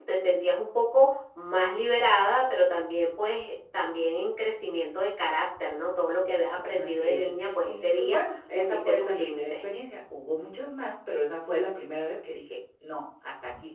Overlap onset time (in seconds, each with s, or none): 6.7 s